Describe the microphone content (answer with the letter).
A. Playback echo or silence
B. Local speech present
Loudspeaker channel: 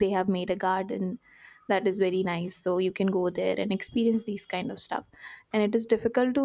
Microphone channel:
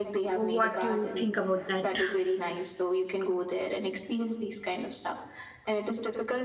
B